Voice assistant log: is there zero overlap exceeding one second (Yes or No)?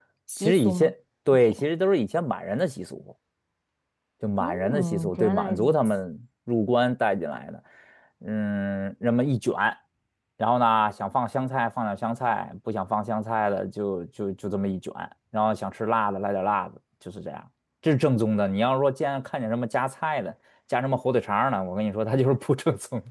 No